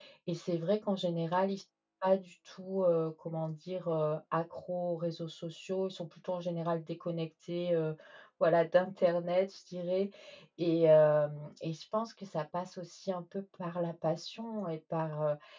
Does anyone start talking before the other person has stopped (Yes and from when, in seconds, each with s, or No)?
No